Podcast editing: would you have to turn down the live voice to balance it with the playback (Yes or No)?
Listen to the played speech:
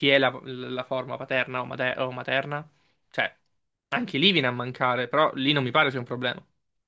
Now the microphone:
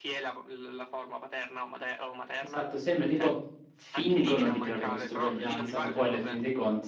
Yes